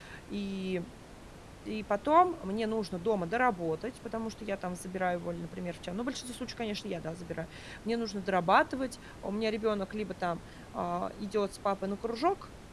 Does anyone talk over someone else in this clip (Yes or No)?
No